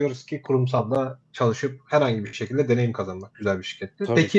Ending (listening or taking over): listening